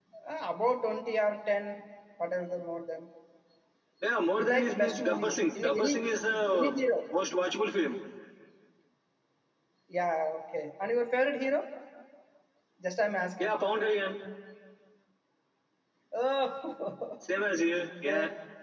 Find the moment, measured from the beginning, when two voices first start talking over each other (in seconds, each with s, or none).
4.3 s